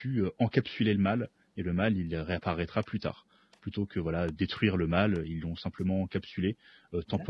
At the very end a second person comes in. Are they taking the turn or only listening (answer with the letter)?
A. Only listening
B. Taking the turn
B